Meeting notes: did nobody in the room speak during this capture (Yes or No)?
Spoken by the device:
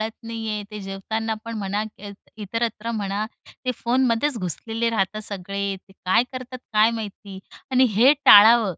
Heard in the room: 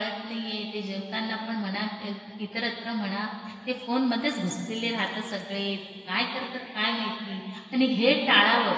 Yes